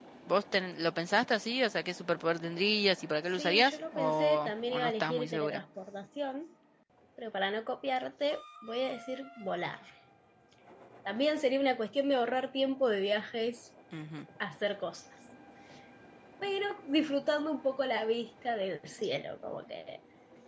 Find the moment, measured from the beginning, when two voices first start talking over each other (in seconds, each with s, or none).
3.4 s